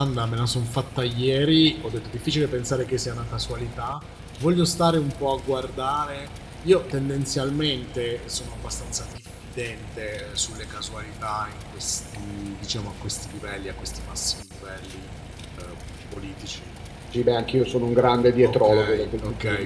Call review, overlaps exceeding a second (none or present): present